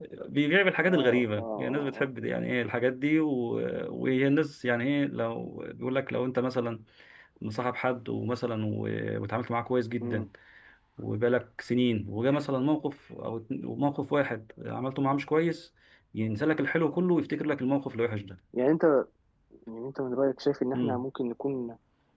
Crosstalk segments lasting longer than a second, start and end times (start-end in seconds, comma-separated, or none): 0.8-2.1